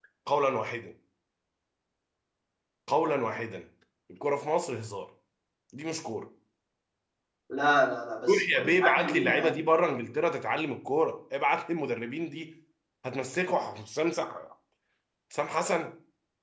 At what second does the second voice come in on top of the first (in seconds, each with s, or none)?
8.3 s